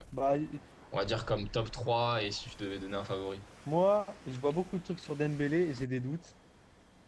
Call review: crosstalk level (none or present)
none